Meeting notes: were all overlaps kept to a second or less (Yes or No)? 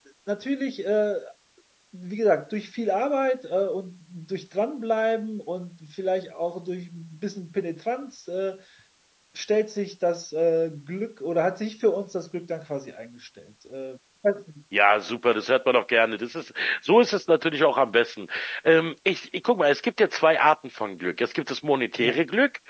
Yes